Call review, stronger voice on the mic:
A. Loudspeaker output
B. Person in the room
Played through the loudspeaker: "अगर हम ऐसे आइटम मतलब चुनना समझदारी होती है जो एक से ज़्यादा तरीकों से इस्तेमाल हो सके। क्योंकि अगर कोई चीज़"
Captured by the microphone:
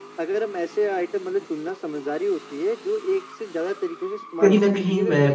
B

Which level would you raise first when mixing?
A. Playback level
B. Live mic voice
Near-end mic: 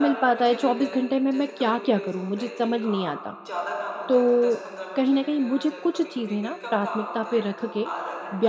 A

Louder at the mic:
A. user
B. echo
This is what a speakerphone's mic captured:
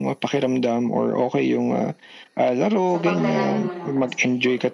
B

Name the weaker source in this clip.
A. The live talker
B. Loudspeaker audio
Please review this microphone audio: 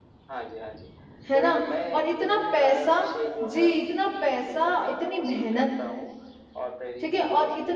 B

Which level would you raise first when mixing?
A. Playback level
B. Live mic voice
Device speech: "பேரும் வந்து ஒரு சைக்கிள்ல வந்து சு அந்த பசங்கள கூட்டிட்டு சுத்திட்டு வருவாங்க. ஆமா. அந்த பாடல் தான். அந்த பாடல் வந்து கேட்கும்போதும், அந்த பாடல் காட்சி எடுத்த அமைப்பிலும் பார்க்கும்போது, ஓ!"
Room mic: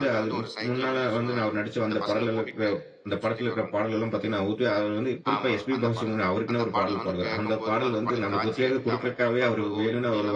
A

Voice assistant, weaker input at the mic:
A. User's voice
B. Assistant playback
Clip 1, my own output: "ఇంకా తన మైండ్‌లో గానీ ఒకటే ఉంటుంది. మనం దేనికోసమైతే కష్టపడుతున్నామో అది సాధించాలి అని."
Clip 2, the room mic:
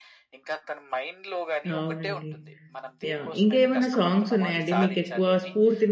B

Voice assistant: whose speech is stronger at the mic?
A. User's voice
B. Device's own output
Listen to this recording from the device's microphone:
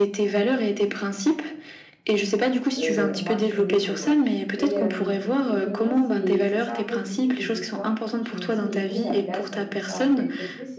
B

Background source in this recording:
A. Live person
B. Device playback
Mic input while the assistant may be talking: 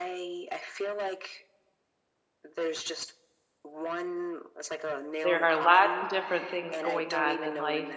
B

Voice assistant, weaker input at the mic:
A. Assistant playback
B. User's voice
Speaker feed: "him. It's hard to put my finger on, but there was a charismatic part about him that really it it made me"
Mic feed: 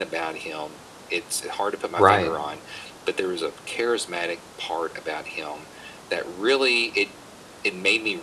A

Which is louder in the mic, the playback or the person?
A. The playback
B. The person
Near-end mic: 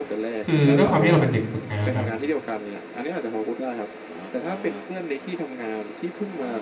B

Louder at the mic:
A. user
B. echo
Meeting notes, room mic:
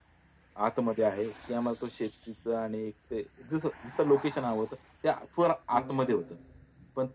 B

